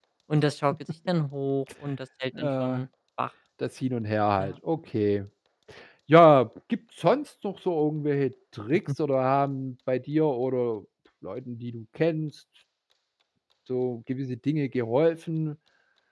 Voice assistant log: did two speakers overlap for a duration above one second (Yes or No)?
No